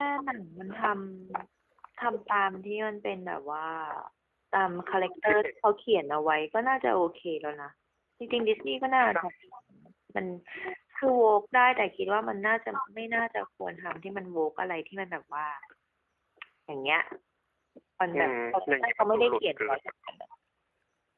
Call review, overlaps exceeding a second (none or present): present